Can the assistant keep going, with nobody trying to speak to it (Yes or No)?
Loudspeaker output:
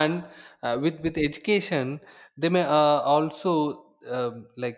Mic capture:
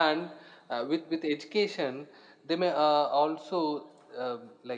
Yes